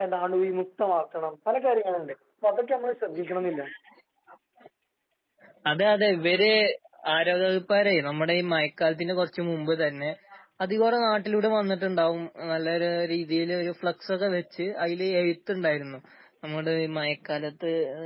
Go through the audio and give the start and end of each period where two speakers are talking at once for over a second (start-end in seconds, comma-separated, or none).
none